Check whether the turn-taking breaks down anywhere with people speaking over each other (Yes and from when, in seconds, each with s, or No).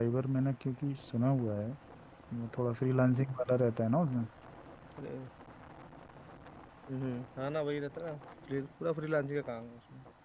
No